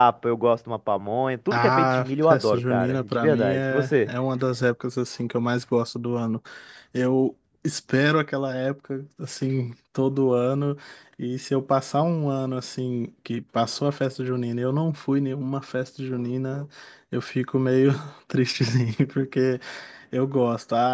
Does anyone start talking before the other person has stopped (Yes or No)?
Yes